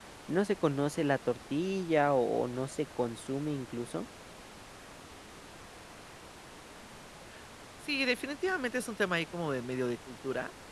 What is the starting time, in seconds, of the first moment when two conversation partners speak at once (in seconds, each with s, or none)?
none